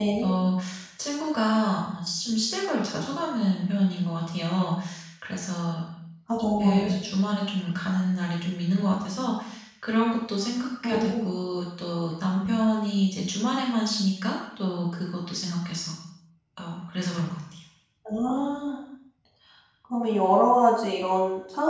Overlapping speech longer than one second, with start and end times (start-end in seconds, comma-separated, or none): none